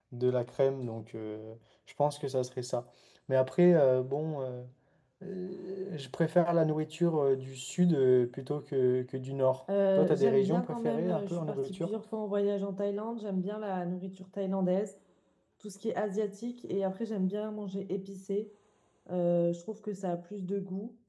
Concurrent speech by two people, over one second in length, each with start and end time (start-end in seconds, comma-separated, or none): 10.0-11.9